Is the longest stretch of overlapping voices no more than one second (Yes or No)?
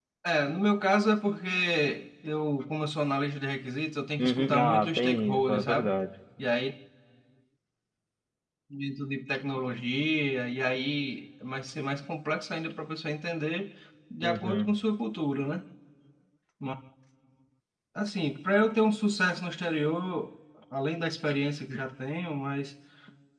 No